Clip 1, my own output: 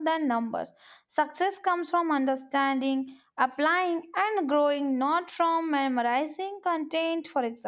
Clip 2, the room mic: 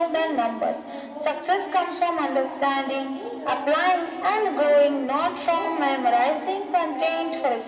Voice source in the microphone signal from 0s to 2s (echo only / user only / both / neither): both